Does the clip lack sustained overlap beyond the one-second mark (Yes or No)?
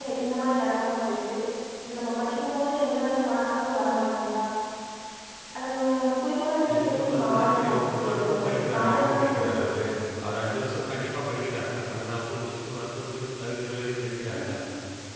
No